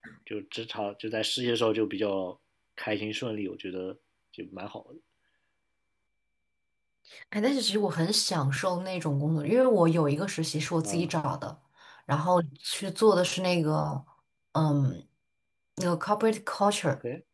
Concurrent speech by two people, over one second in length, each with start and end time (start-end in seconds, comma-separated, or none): none